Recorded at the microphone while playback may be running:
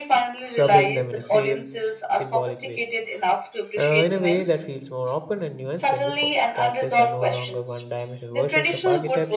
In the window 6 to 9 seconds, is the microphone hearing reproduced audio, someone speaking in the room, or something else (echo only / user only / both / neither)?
both